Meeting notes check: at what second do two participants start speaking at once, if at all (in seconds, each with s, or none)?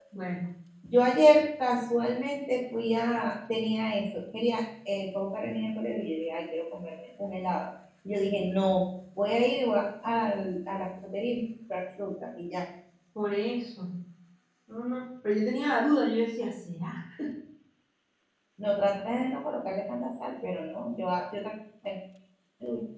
none